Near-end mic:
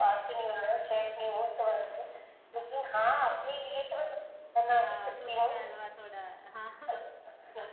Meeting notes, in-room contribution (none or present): present